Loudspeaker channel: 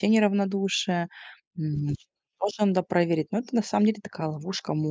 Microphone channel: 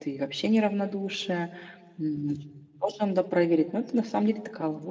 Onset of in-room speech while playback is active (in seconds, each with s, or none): none